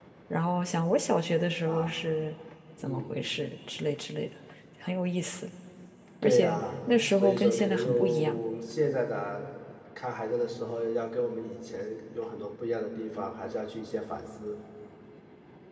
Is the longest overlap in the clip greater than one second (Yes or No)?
Yes